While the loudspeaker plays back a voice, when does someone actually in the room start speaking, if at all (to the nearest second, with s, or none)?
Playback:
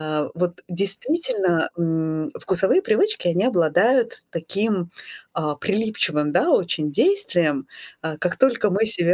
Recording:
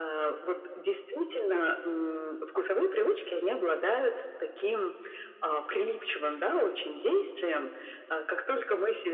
none